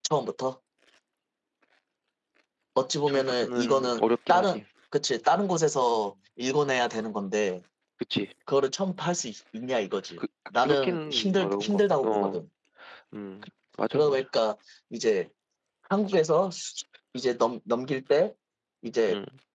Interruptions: present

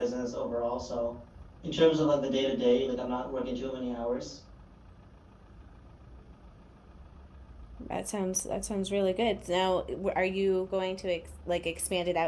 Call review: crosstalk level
none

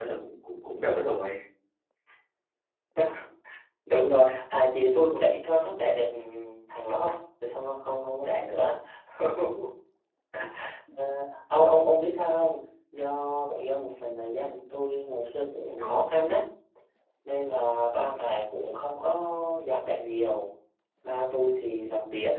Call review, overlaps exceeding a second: none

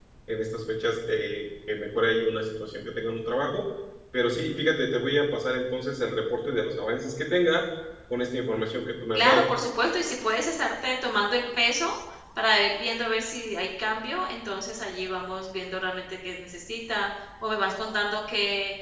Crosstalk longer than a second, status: none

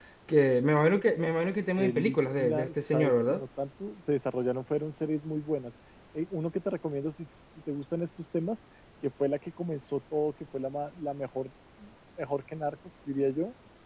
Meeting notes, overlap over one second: present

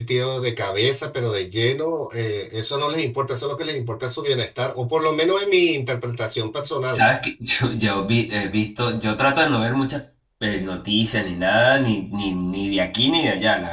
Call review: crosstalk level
none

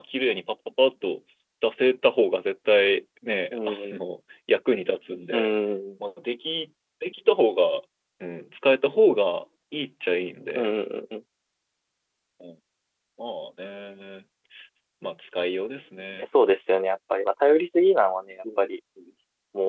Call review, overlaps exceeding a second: none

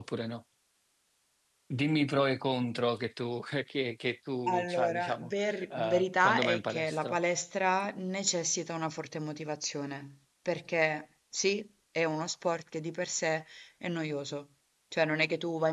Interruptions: present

